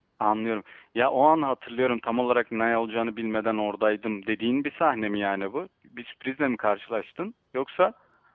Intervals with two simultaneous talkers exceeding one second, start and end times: none

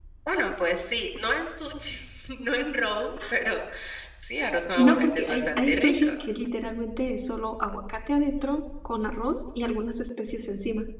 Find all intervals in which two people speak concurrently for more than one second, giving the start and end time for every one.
4.8-6.1

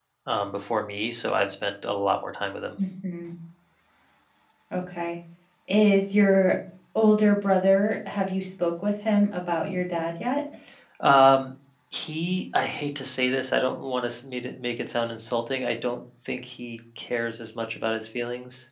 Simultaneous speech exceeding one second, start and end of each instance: none

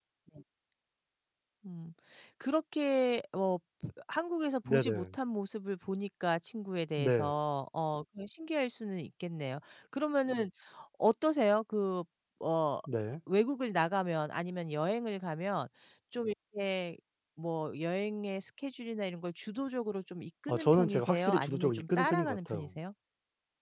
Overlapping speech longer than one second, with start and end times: 20.5-22.7

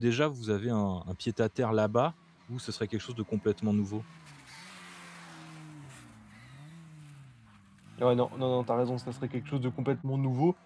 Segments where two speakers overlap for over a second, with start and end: none

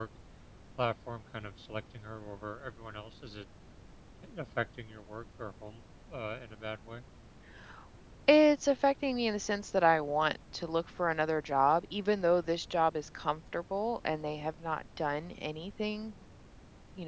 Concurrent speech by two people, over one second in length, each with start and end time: none

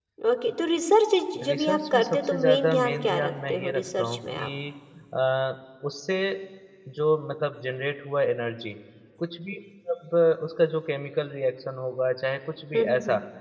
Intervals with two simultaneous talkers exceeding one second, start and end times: 1.4-4.4

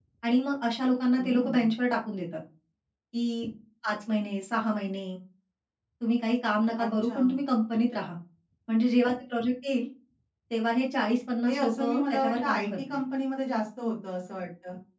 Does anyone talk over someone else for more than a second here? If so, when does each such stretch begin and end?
11.4-13.0

